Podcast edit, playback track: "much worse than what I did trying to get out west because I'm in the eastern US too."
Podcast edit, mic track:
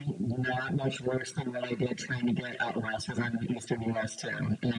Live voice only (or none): none